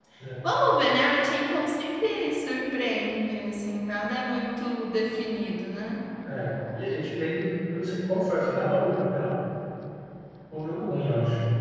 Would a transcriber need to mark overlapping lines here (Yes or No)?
No